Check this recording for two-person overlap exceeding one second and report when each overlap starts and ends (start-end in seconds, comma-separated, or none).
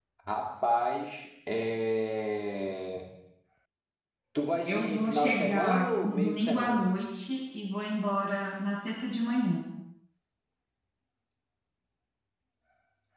4.7-6.9